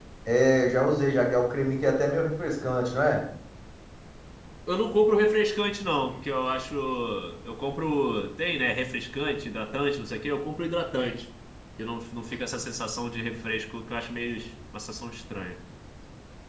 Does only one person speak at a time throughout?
Yes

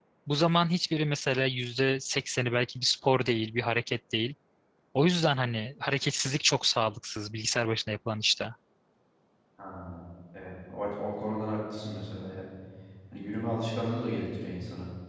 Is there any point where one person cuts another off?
No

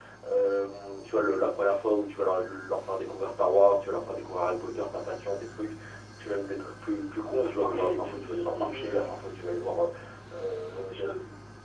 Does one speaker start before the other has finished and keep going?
Yes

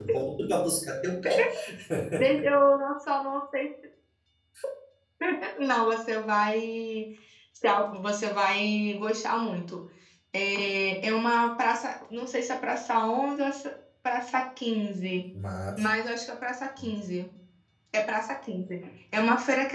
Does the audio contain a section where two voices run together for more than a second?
No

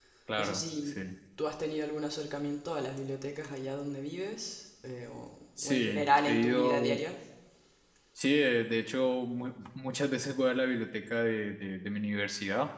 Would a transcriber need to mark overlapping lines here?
Yes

